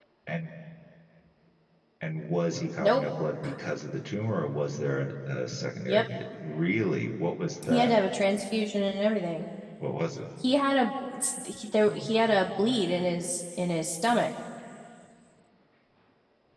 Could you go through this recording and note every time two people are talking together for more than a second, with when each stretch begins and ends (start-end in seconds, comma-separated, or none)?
none